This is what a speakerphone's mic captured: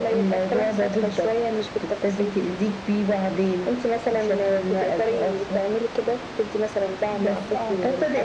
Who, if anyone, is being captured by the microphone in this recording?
echo only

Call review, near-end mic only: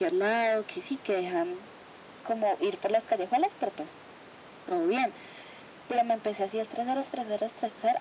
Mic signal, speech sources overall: echo only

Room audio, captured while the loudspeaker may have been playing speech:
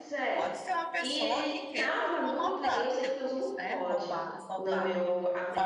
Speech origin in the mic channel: both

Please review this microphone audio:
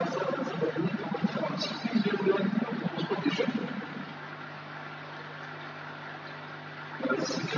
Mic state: echo only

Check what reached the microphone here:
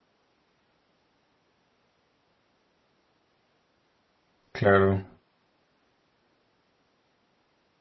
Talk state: user only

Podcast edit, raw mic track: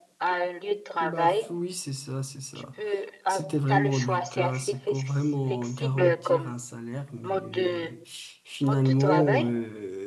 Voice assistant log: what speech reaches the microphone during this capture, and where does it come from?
both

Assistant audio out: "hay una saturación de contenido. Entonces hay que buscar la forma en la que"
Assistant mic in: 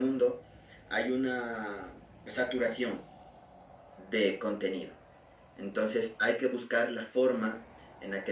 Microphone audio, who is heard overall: echo only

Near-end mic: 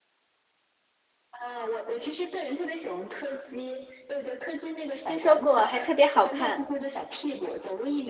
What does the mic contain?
both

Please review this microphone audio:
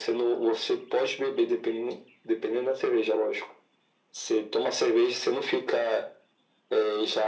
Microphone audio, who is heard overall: echo only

